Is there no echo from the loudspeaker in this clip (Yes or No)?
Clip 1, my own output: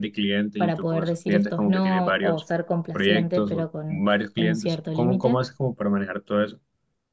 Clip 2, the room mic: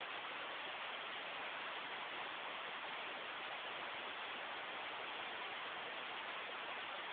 Yes